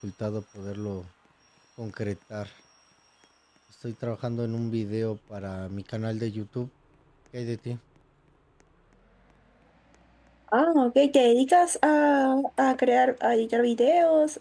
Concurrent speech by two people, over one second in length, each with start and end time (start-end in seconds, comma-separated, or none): none